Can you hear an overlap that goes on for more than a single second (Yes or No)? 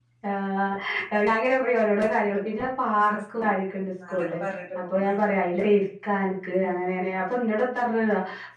No